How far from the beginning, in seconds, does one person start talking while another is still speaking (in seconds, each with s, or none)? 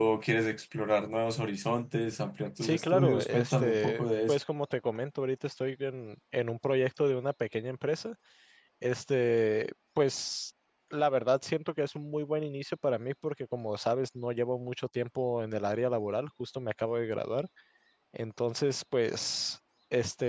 2.6 s